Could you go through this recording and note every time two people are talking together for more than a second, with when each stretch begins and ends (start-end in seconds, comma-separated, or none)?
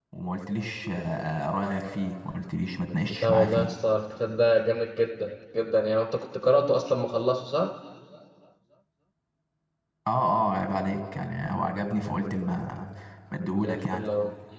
none